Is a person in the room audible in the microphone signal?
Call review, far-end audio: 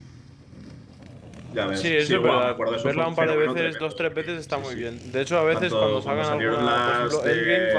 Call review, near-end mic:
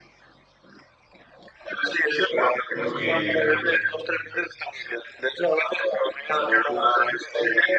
Yes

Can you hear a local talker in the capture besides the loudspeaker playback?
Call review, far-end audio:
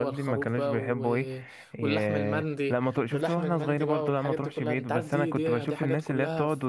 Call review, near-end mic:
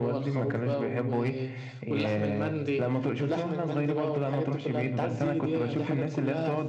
No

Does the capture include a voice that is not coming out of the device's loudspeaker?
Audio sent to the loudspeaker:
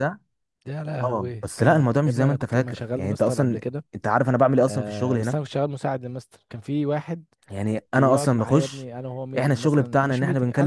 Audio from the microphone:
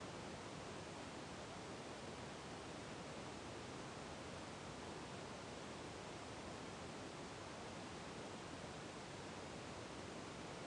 No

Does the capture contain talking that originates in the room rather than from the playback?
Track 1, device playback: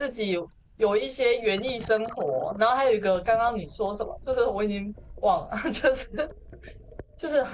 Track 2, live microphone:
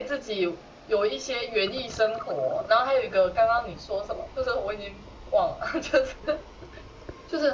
No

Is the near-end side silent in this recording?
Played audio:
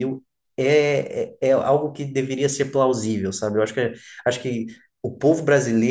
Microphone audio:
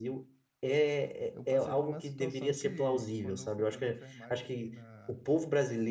No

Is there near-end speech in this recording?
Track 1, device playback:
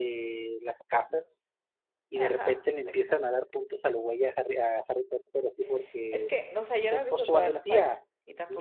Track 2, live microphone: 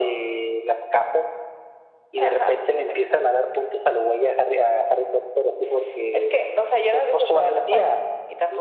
No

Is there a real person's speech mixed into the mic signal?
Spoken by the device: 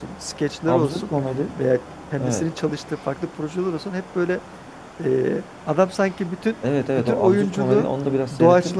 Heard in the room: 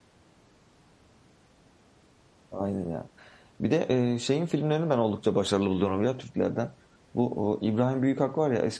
Yes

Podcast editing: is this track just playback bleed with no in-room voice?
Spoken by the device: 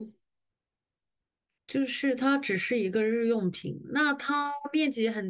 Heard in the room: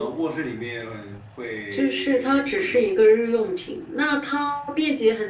No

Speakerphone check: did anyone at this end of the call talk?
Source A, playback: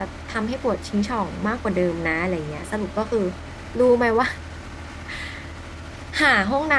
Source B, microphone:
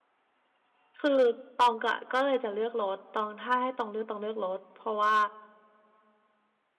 Yes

